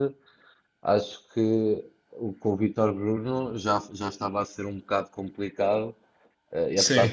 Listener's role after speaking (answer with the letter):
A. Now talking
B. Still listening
B